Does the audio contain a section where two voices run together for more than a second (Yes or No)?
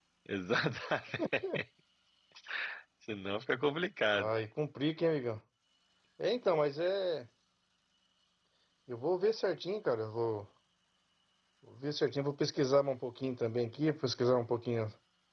No